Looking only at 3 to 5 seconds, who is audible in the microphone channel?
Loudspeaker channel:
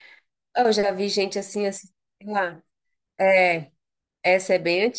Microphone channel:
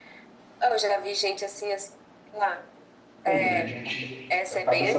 both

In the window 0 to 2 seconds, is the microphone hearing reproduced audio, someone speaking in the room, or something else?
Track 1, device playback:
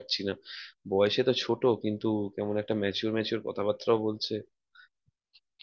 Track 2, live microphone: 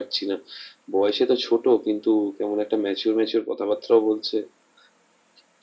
echo only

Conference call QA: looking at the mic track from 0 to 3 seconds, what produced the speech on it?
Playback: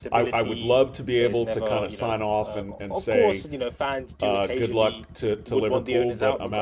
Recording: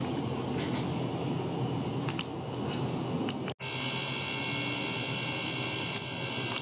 neither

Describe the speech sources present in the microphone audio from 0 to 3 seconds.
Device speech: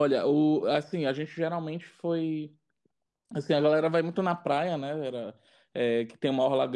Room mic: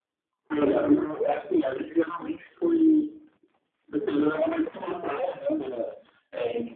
echo only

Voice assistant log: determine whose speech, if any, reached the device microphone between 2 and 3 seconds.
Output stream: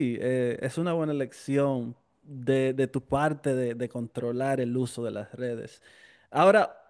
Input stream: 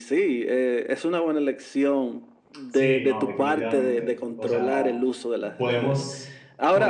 both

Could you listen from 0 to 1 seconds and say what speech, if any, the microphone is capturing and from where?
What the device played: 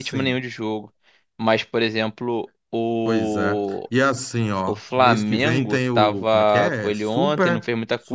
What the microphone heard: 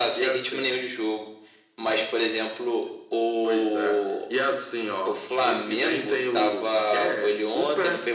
echo only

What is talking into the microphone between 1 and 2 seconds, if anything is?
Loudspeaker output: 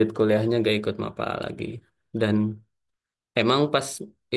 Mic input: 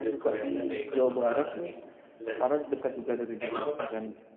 both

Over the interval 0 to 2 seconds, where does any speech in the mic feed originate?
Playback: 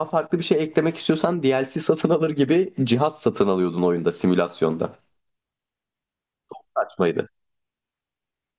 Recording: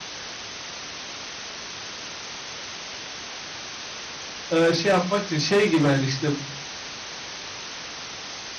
neither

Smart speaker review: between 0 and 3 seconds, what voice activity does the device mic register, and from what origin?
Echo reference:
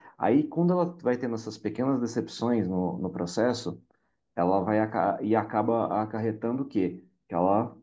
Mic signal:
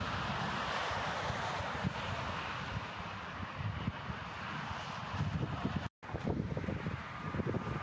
neither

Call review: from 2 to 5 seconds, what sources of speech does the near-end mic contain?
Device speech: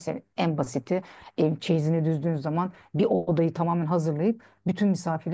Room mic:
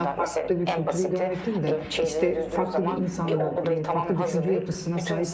both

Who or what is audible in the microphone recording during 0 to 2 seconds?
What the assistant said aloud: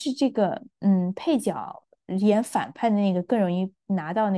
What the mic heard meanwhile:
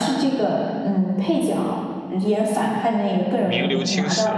echo only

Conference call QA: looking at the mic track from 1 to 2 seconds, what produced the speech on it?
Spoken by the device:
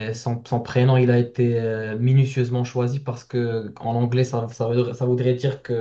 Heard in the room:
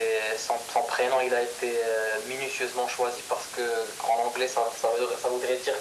echo only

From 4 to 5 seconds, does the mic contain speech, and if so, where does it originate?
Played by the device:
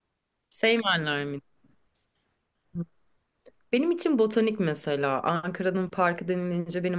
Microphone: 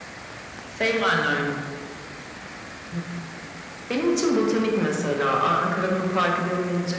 echo only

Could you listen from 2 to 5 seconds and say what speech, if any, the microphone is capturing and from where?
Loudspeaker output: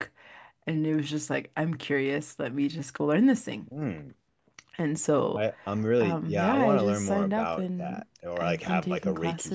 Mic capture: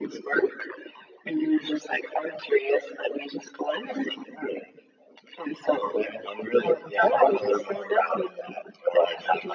echo only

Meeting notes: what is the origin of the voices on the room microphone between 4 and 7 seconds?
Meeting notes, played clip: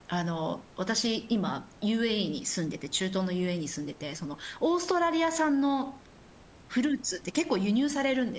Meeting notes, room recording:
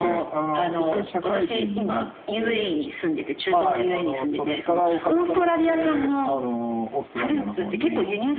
both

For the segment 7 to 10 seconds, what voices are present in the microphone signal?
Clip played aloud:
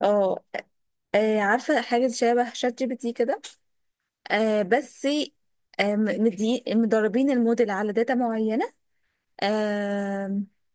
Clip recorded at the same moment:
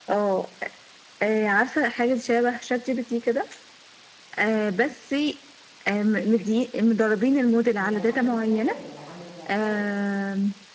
both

